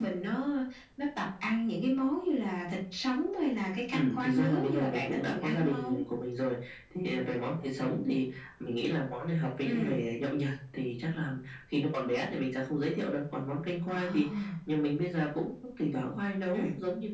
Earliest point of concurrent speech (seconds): 3.9 s

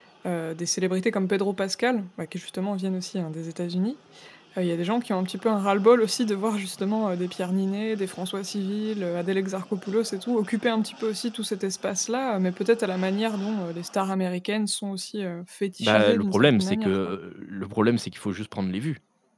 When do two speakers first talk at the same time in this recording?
15.8 s

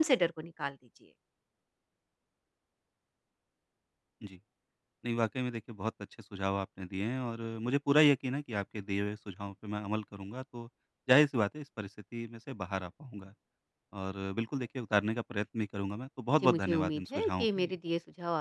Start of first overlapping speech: 16.4 s

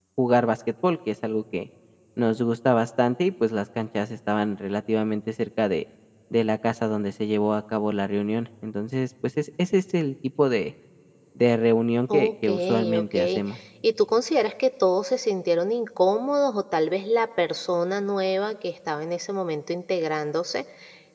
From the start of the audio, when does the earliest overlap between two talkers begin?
12.1 s

